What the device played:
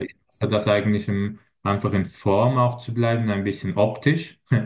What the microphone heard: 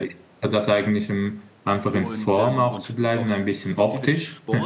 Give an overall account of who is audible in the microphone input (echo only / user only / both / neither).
both